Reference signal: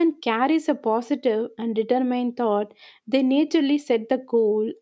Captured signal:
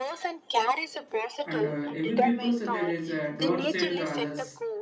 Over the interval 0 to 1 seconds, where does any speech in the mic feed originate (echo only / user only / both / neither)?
echo only